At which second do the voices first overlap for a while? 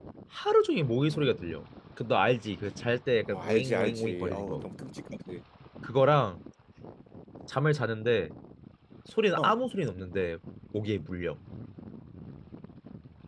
3.3 s

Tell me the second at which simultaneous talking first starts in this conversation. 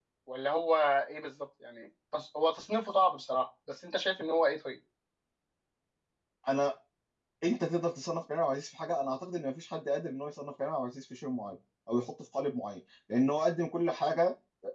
none

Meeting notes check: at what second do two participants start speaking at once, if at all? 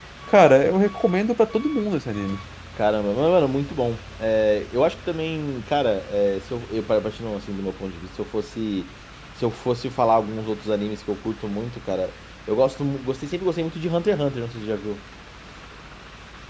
none

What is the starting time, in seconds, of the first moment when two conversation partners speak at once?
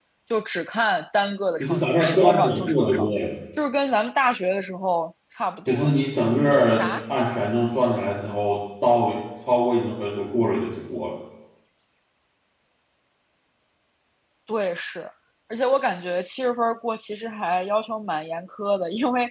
1.6 s

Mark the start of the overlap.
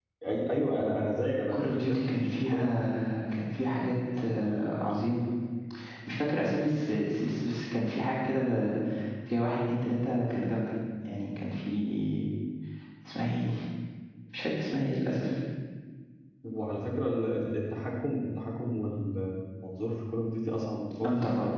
1.5 s

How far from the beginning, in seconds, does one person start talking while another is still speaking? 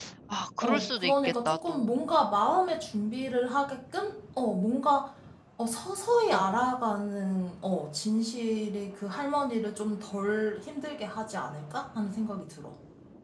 0.6 s

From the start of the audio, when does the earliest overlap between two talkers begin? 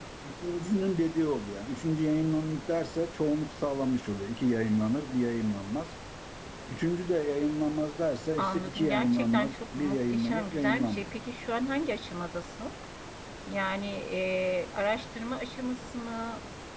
8.4 s

